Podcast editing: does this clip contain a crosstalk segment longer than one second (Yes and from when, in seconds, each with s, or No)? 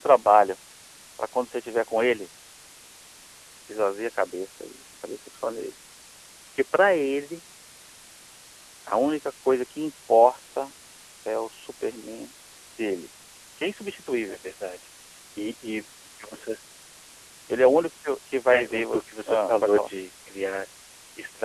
Yes, from 18.5 s